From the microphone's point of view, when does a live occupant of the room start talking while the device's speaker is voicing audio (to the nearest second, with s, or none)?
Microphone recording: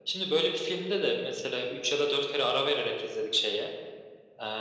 none